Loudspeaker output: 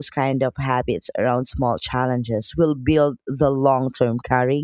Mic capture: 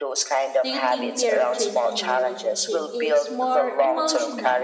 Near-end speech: present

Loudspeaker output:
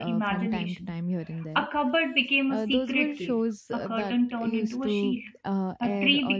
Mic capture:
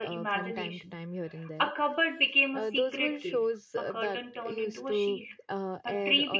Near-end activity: none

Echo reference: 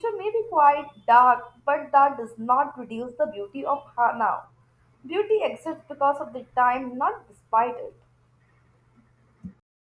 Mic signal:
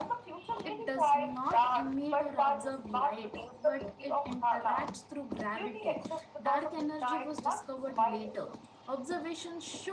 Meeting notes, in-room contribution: present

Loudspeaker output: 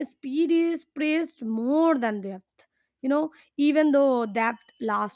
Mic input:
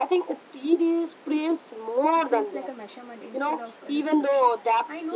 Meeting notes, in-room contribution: present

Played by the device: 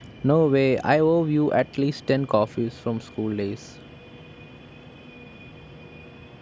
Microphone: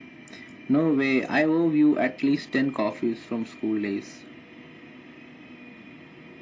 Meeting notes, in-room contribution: none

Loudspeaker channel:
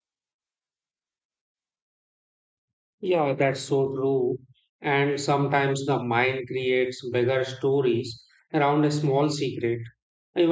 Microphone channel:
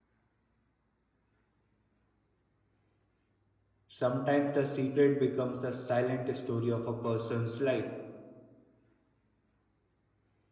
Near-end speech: present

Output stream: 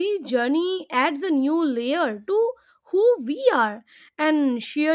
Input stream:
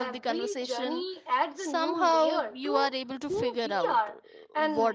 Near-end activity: present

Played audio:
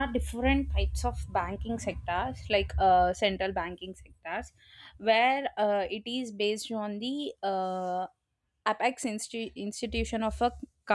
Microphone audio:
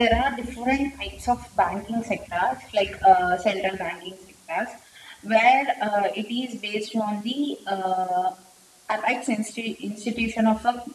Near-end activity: none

